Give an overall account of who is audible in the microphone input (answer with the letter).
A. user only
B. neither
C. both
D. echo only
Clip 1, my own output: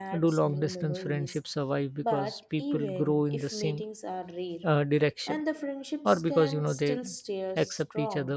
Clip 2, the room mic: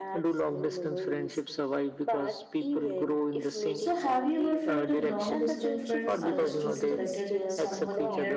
C